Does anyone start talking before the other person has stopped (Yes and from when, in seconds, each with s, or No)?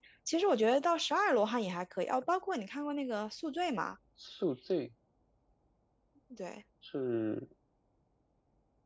No